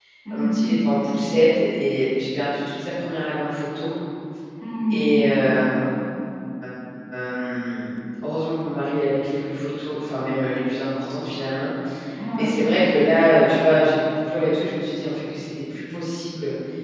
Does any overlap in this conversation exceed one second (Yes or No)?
No